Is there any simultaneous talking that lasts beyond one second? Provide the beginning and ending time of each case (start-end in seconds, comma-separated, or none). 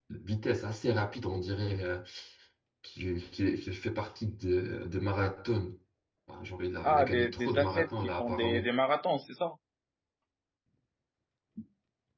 6.8-8.7